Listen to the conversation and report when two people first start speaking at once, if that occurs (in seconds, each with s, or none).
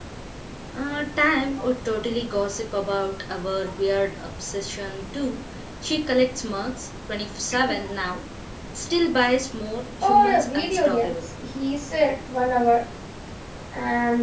10.0 s